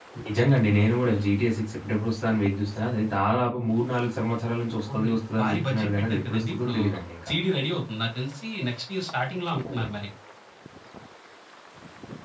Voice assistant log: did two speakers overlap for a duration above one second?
Yes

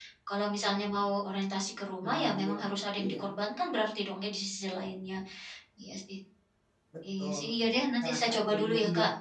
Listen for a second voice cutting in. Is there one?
Yes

